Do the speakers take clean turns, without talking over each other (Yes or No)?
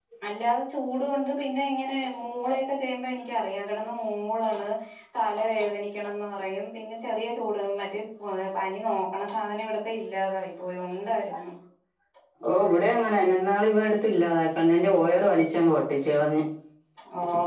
Yes